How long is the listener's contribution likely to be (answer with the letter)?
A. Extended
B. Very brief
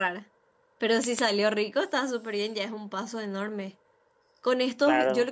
B